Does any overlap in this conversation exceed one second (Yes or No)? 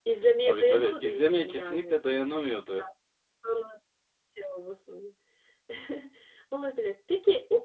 Yes